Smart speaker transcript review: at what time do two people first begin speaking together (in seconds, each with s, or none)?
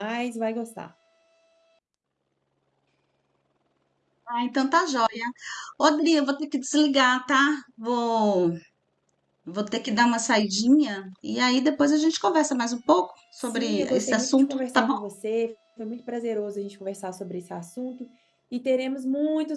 13.4 s